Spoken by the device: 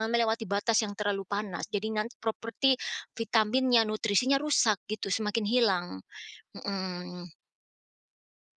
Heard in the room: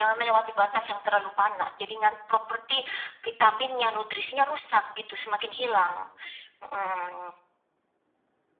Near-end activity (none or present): none